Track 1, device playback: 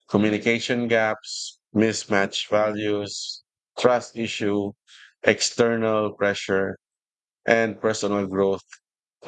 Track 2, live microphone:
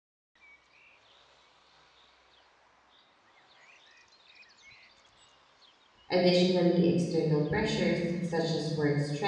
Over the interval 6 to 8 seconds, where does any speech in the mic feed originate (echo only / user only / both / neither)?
user only